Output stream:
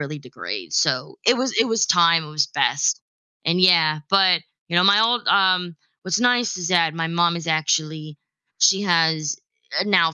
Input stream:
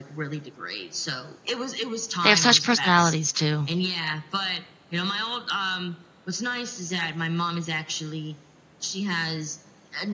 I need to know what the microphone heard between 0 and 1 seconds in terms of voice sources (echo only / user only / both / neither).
echo only